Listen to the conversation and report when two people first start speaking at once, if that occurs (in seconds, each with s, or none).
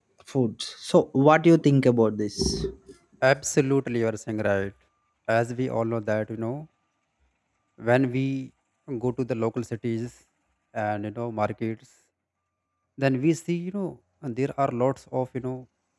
none